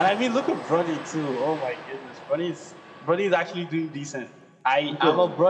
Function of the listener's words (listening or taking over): listening